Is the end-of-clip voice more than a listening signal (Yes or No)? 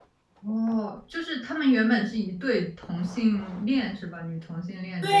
Yes